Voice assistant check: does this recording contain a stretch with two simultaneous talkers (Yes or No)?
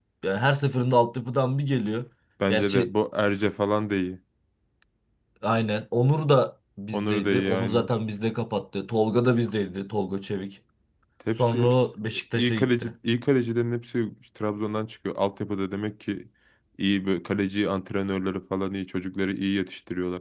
Yes